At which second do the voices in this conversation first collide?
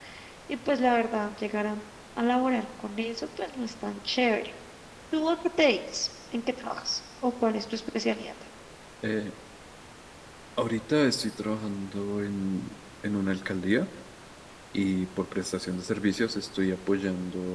none

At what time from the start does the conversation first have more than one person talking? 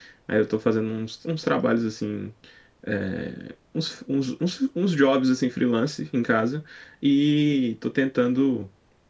none

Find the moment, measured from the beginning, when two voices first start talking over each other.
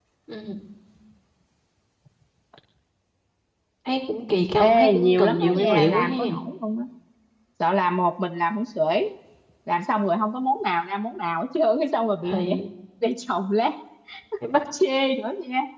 4.6 s

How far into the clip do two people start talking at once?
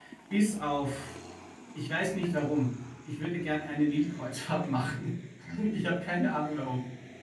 none

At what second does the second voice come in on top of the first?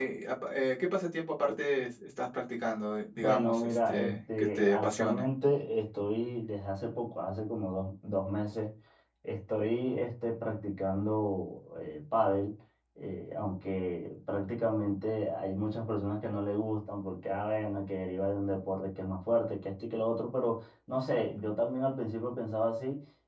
3.2 s

